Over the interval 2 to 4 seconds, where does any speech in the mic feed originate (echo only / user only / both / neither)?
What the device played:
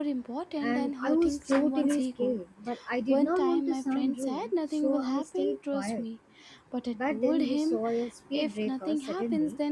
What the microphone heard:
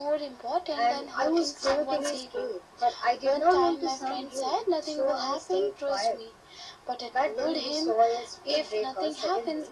echo only